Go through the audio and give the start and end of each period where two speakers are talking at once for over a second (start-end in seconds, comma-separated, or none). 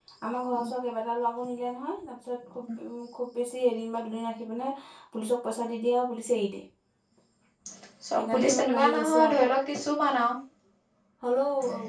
8.1-9.4